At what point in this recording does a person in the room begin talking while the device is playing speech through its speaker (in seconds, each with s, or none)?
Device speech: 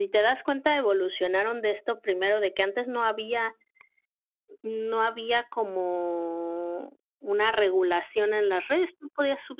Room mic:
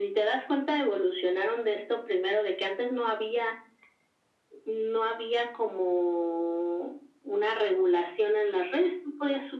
none